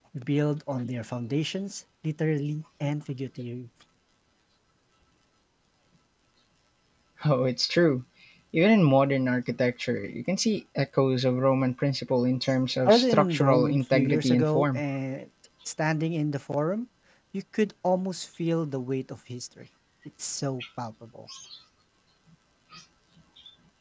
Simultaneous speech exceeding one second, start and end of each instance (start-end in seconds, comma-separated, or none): 12.8-14.8